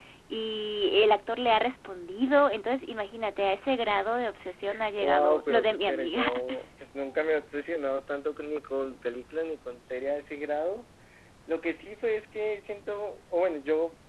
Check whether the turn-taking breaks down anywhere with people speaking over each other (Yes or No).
Yes